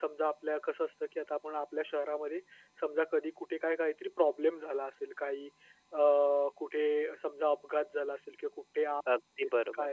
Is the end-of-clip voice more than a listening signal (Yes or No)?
No